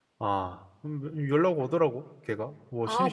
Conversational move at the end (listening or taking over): taking over